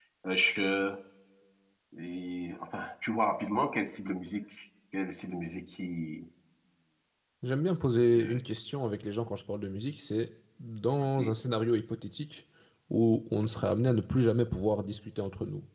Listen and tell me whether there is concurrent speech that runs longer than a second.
No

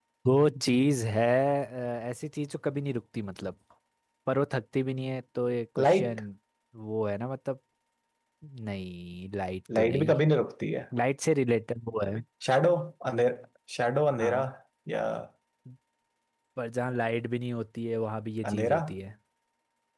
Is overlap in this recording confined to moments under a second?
Yes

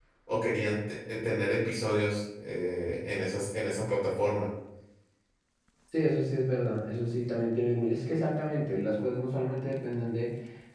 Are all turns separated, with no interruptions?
Yes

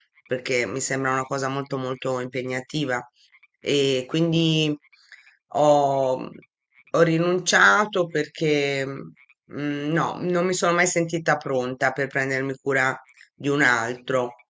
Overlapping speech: No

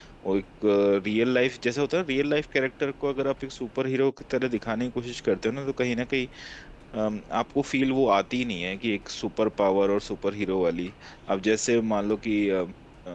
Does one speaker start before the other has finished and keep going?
No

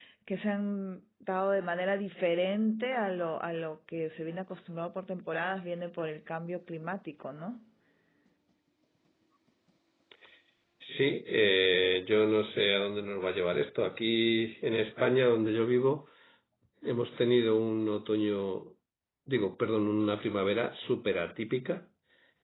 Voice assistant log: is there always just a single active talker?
Yes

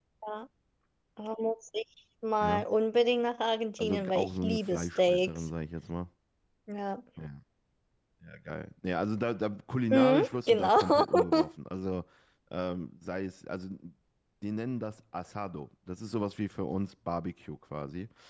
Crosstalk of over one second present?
Yes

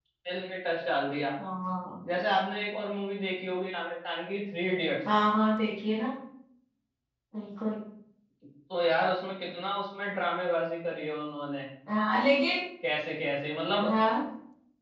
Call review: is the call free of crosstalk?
Yes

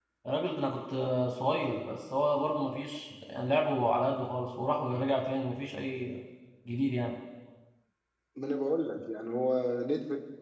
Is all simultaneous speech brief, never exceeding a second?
Yes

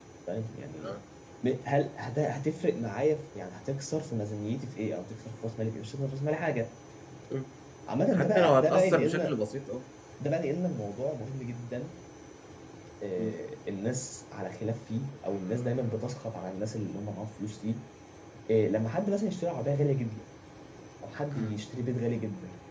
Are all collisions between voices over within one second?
No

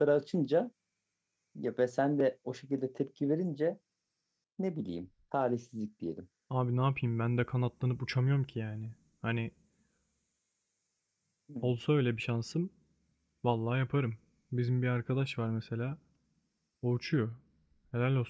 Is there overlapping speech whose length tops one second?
No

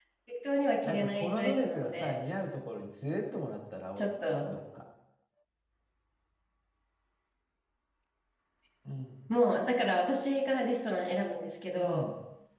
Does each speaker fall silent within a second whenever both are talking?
No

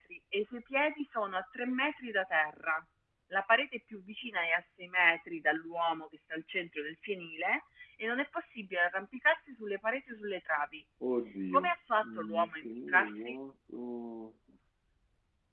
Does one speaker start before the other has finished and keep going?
Yes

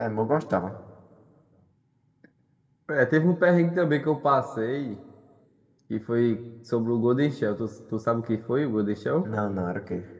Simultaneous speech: No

